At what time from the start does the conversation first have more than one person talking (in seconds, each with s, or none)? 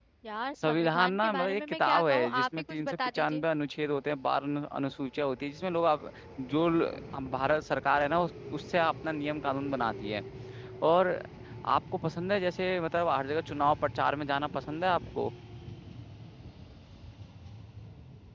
0.6 s